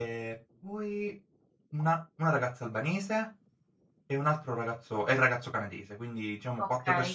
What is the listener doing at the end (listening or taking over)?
listening